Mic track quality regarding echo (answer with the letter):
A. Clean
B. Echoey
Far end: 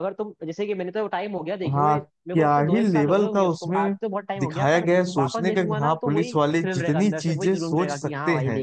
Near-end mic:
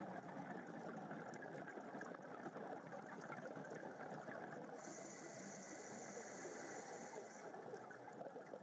A